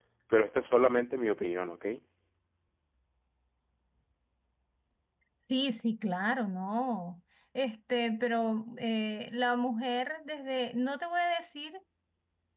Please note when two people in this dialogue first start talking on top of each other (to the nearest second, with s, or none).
none